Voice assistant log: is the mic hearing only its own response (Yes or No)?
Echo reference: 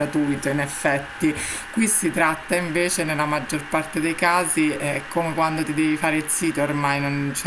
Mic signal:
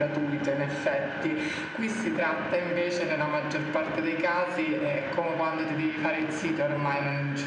Yes